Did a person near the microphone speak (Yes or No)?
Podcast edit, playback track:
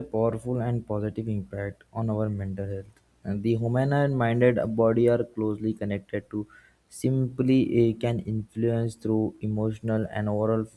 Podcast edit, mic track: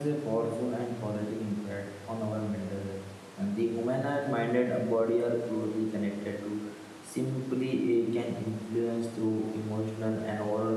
No